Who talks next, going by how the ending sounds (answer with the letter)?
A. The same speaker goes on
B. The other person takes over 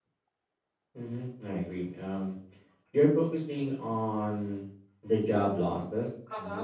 A